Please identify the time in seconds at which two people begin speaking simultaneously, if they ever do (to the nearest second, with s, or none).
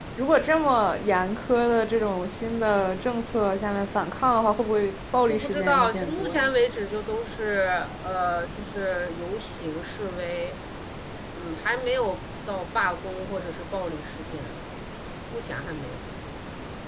5 s